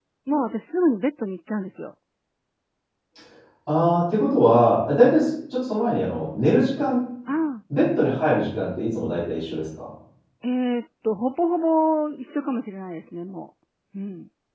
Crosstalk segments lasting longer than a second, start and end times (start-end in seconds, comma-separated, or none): none